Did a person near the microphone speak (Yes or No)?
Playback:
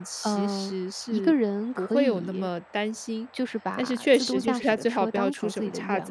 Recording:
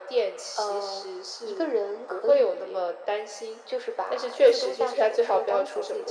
No